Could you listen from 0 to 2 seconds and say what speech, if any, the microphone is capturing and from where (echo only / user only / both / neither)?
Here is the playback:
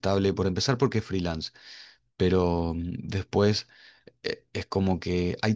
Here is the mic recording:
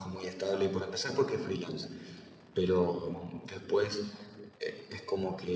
echo only